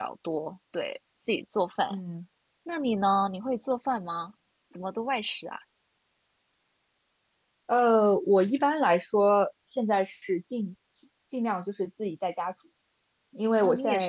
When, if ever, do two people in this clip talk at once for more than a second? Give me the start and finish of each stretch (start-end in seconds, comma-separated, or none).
none